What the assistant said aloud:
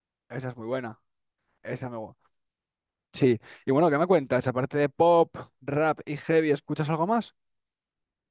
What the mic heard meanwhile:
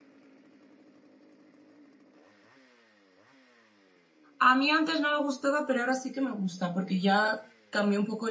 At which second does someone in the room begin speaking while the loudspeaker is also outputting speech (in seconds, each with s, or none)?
4.4 s